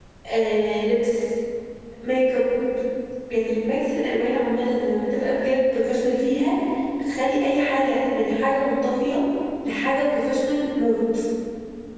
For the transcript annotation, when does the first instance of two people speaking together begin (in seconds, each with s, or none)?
none